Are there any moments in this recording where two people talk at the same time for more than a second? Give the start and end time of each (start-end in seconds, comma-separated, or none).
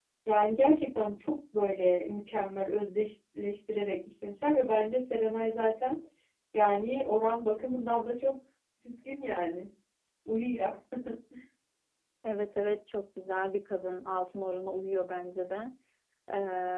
none